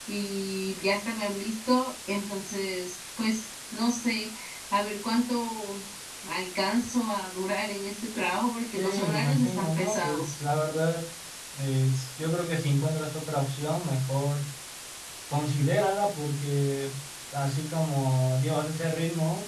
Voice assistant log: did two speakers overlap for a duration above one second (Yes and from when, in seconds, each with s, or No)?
Yes, from 8.8 s